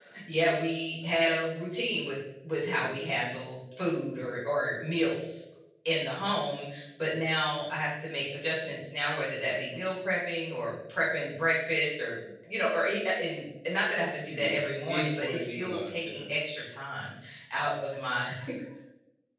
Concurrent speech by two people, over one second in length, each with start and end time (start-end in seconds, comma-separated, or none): 14.3-16.2